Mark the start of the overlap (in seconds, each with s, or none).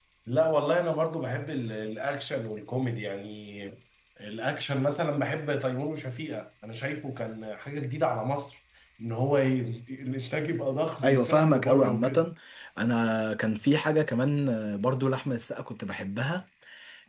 11.0 s